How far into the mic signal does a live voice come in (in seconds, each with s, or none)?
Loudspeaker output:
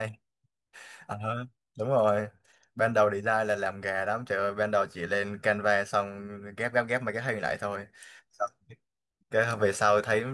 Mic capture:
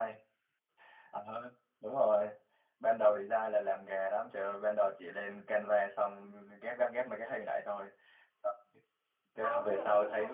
9.4 s